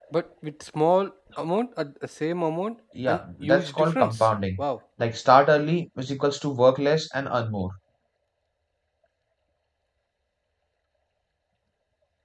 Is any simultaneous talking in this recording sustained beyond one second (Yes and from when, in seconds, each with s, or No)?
Yes, from 3.0 s